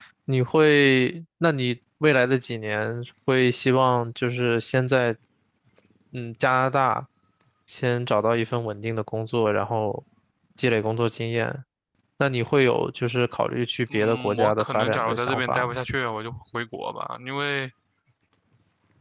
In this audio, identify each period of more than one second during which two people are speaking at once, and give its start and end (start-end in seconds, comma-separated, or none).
13.9-15.8